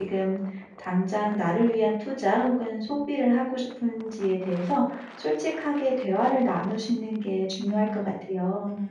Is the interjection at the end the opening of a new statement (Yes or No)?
Yes